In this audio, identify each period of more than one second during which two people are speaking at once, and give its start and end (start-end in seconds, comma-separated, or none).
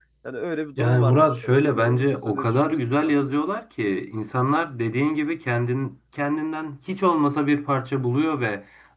0.8-3.1